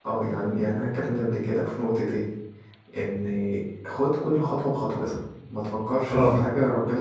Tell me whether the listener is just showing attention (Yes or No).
No